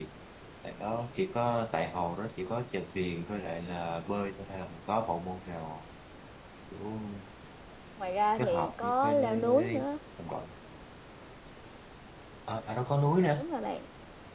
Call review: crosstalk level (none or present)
present